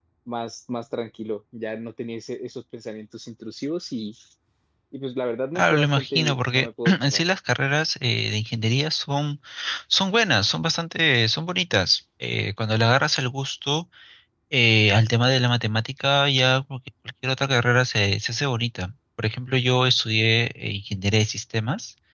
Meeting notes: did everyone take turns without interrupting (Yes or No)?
No